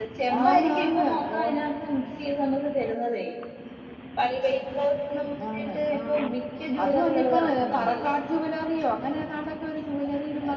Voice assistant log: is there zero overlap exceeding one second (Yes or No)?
No